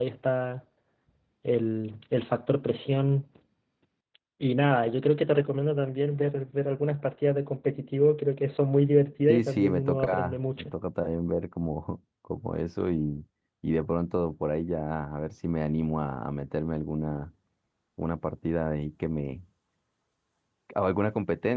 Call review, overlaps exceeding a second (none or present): present